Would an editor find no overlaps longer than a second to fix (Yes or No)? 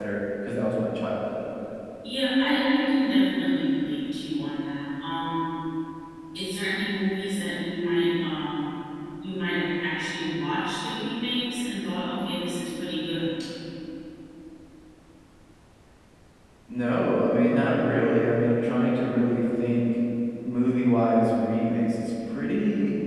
Yes